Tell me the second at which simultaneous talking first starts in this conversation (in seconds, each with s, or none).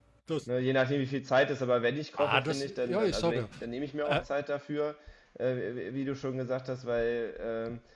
2.2 s